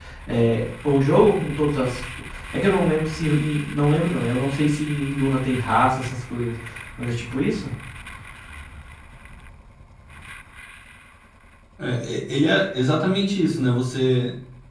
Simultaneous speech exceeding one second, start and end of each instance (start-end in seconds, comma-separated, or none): none